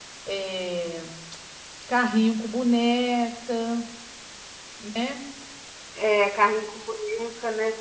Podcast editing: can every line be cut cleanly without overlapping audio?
Yes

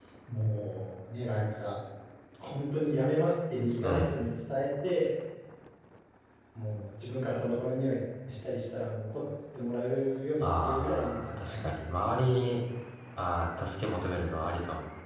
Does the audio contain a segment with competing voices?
Yes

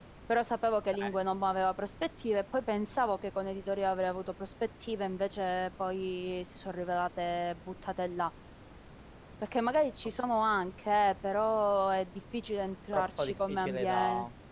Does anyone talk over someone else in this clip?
Yes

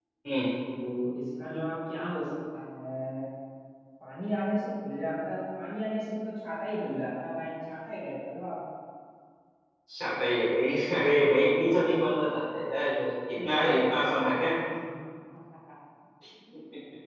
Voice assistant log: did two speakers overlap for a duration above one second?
Yes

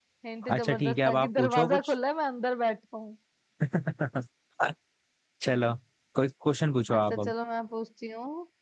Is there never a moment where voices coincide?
No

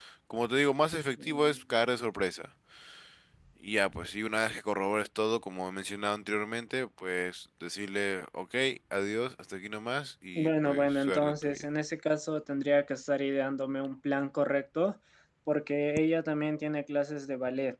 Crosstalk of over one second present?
Yes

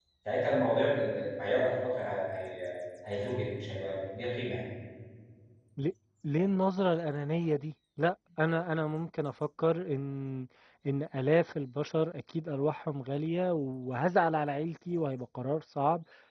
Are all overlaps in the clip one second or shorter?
Yes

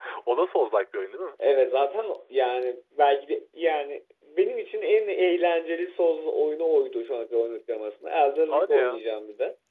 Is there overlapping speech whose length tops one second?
No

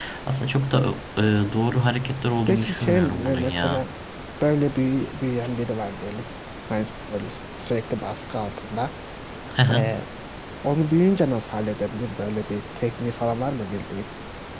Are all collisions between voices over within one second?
No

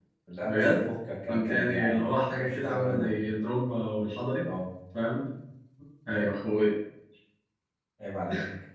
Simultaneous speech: Yes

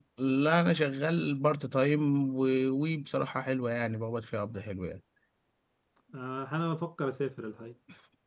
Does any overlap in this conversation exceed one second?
No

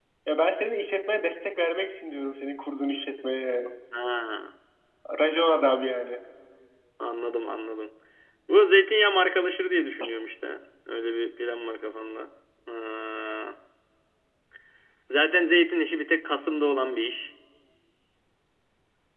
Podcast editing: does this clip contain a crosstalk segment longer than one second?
No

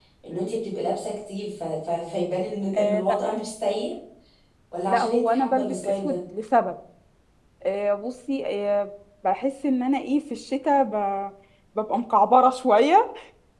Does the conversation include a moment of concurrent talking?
Yes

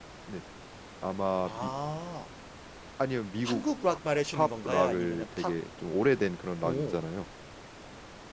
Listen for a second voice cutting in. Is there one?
Yes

